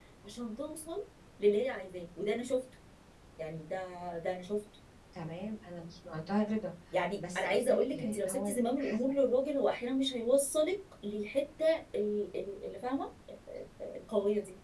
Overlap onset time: 7.2 s

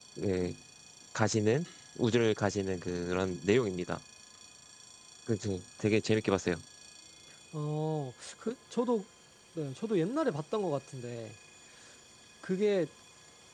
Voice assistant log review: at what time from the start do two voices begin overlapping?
none

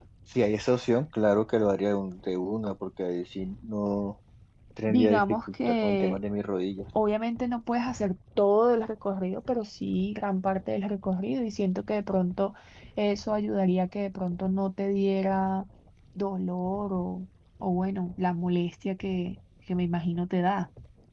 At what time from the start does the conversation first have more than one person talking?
4.9 s

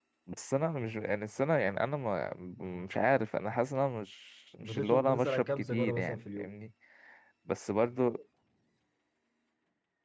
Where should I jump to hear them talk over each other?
4.6 s

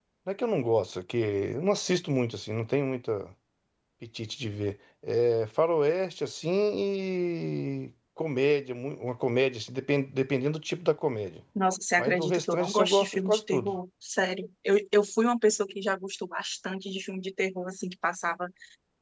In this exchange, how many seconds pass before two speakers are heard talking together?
12.0 s

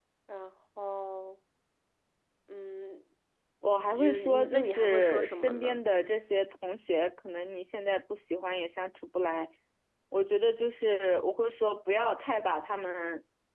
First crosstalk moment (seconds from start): 3.6 s

